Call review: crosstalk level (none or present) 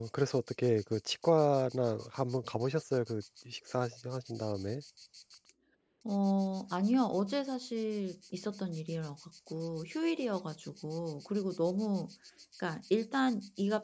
none